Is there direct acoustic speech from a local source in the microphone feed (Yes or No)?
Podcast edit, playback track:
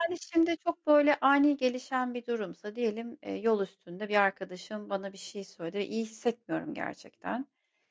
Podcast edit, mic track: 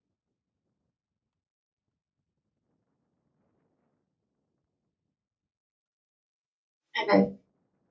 Yes